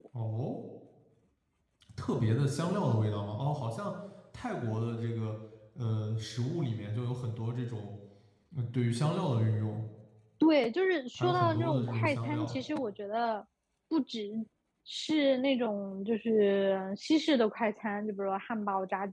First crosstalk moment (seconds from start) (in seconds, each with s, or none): 11.2 s